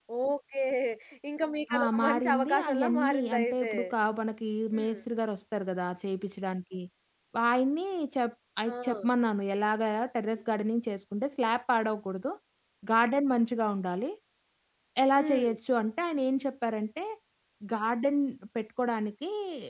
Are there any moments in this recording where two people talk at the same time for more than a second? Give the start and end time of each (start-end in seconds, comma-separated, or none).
1.8-3.7